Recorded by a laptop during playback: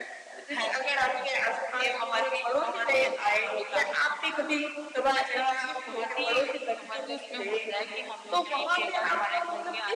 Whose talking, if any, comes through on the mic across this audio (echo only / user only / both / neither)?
echo only